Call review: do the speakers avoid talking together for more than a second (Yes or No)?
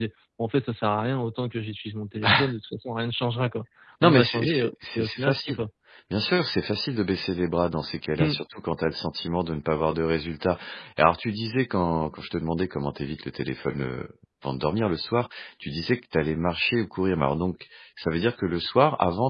No